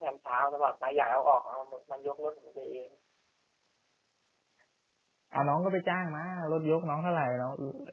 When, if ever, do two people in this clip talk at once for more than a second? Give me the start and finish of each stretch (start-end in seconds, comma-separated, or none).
none